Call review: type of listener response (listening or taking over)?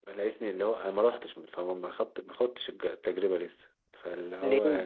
listening